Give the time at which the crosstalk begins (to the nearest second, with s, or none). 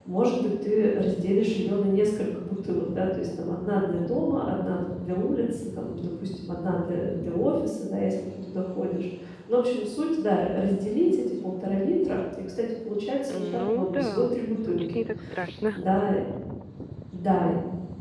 13 s